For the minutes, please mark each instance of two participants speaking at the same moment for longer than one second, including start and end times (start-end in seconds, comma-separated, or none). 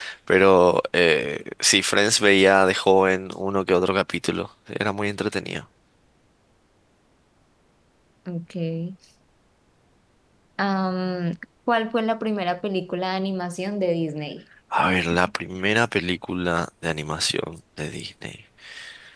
none